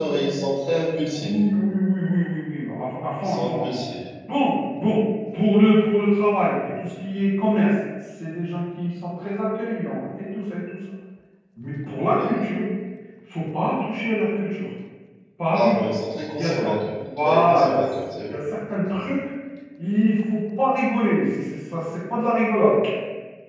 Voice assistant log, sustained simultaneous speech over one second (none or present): present